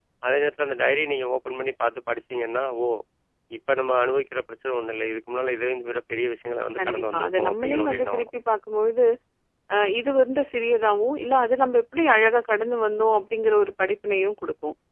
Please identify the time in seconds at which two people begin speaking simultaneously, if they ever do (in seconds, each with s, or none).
6.8 s